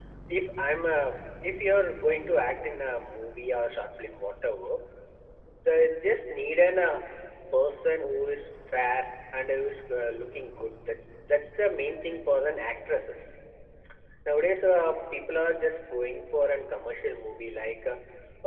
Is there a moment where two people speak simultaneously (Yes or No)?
No